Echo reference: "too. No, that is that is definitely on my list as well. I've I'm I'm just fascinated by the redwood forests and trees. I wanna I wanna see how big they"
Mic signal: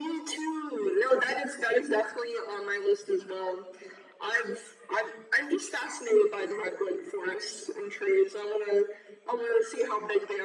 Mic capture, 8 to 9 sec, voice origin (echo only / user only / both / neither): echo only